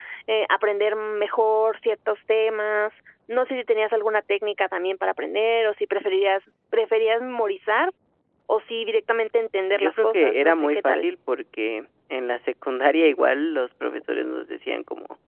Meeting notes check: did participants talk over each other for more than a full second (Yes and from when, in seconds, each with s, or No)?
Yes, from 9.7 s